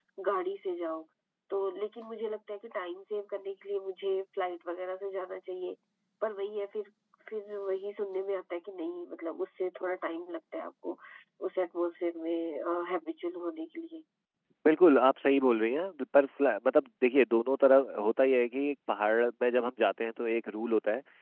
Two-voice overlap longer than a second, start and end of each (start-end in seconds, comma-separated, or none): none